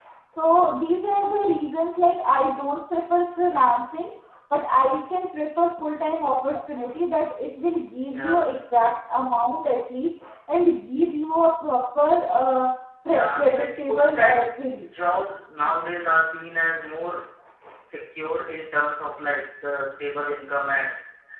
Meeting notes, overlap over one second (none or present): present